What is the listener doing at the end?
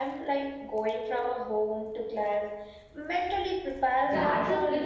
taking over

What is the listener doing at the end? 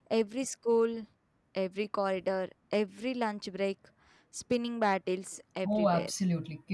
taking over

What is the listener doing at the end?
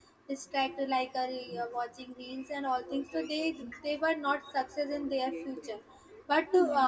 listening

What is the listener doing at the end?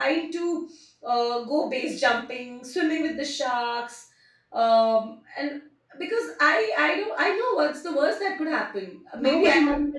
taking over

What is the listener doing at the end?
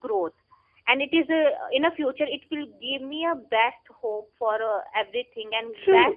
taking over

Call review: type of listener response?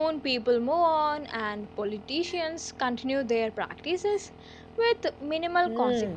taking over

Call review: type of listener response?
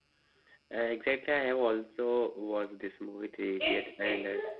taking over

